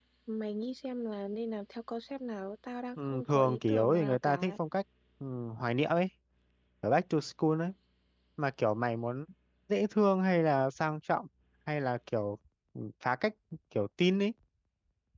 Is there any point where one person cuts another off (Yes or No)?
Yes